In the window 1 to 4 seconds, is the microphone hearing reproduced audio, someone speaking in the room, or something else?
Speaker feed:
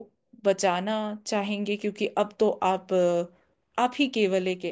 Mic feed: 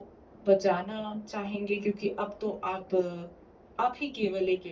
echo only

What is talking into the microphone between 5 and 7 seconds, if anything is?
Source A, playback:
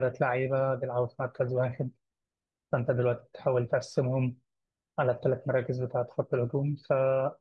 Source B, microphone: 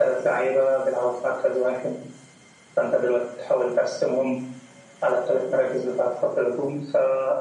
echo only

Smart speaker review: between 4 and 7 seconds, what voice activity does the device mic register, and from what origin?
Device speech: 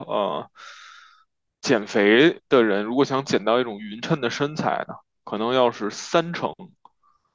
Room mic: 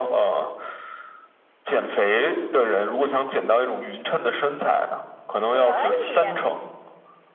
both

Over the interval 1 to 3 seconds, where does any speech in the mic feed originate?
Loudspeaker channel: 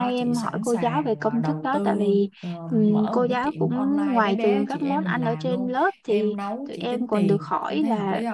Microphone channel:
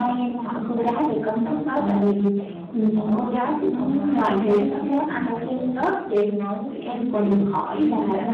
echo only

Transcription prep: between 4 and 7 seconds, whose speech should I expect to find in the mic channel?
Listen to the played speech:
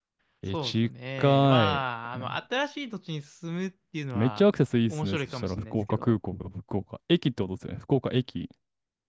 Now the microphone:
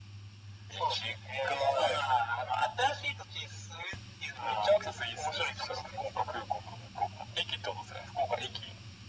echo only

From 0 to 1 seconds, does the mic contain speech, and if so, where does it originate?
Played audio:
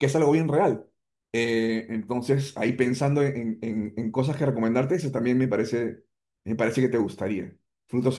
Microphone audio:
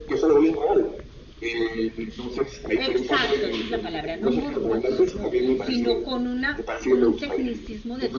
echo only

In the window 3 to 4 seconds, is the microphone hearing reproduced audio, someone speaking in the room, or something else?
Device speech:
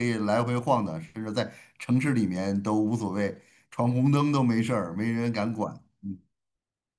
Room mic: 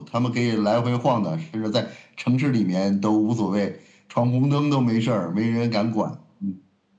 echo only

